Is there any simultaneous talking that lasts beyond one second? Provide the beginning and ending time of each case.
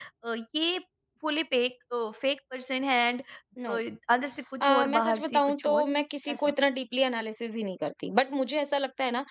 4.6-5.8

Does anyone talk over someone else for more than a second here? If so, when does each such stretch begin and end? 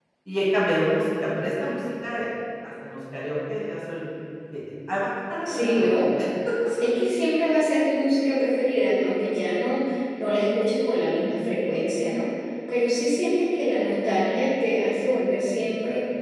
none

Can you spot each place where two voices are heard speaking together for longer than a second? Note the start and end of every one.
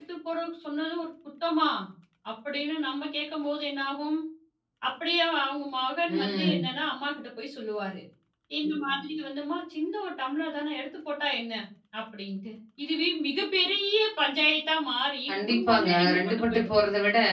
15.3-16.7

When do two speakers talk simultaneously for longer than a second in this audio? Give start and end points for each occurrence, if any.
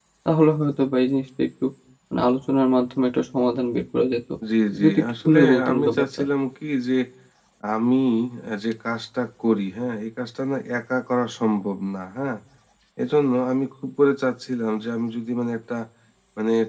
4.8-6.2

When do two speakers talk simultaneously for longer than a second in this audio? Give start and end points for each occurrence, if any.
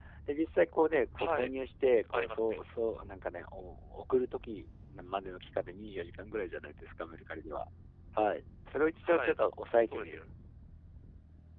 none

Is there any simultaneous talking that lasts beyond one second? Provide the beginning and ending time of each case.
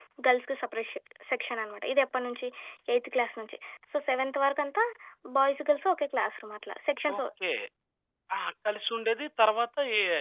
none

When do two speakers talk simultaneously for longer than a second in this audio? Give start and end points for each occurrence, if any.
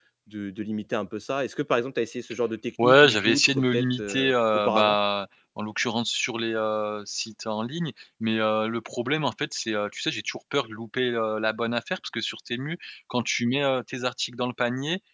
2.8-5.0

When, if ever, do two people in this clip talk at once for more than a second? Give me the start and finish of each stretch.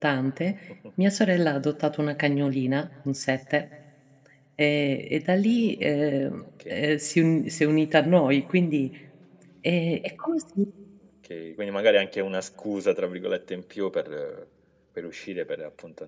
none

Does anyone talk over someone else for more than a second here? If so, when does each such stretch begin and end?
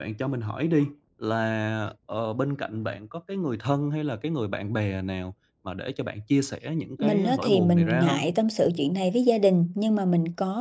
7.0-8.2

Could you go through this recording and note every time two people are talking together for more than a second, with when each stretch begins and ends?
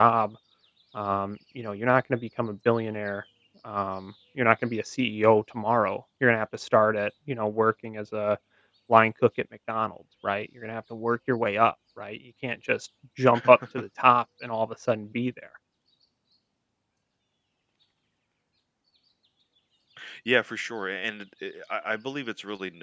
none

